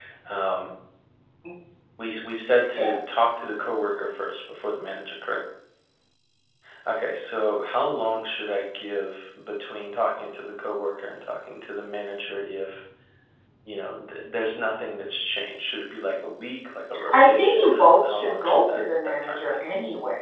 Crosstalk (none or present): present